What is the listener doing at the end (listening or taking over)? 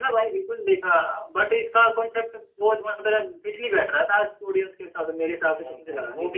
taking over